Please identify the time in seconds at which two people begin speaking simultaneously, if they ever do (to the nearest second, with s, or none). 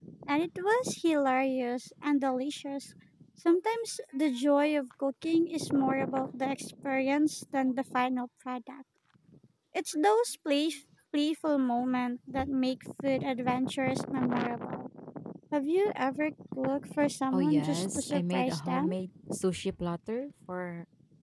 17 s